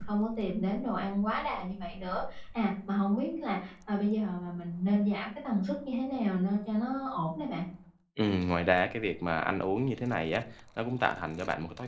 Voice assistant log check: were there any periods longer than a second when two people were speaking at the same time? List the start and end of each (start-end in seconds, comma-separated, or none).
none